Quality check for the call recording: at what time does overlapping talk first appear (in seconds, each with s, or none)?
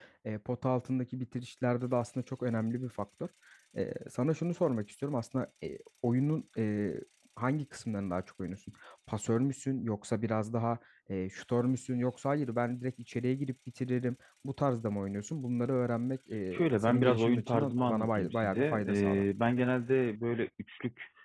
16.5 s